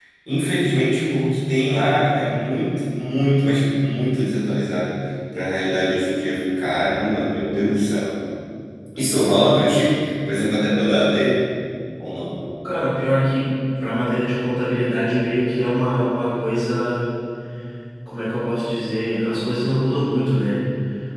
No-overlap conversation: Yes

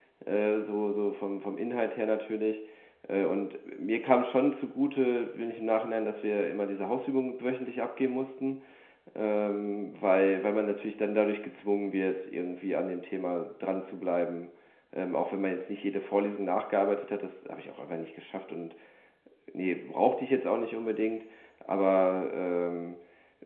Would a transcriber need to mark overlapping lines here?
No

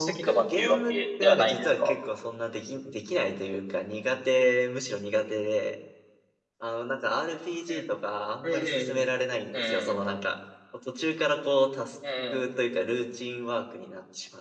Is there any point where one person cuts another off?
Yes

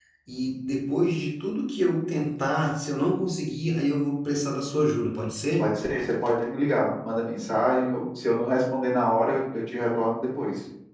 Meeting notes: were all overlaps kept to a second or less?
Yes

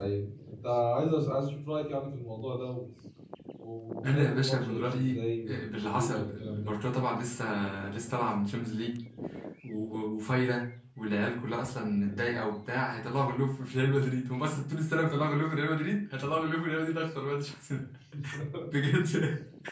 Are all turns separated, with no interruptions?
No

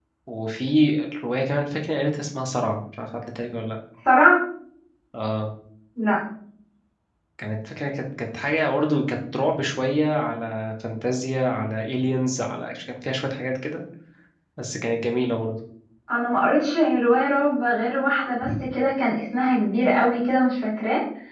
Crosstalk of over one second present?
No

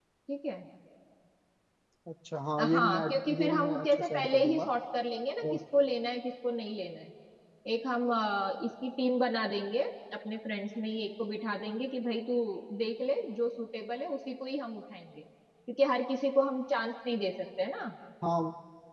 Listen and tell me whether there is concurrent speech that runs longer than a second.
Yes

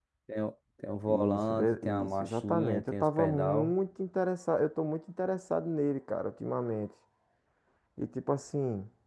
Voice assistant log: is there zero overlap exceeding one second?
No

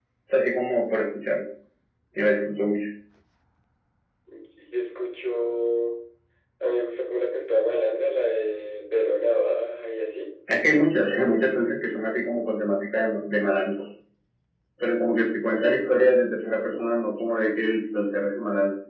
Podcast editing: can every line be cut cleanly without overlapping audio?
Yes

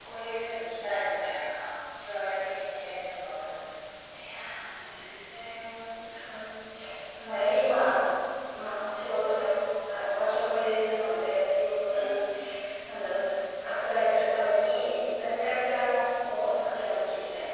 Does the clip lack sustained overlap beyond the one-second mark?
Yes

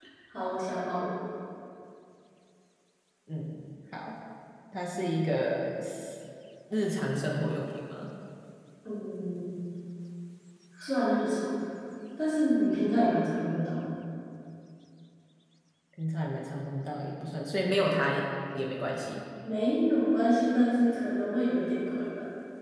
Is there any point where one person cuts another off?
No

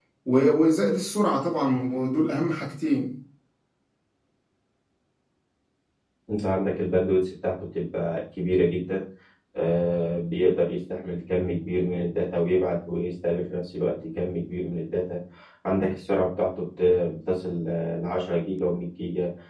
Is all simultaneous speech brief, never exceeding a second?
Yes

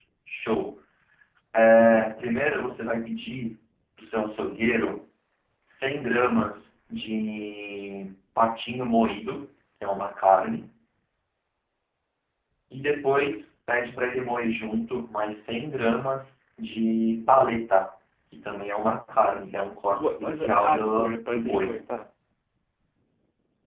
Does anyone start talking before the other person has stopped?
Yes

